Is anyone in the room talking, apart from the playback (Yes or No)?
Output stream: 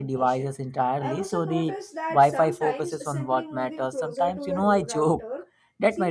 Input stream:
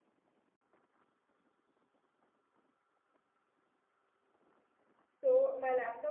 Yes